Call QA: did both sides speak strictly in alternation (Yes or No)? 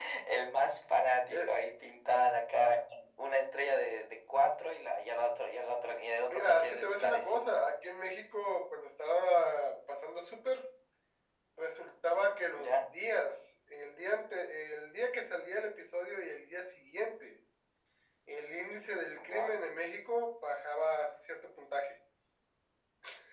No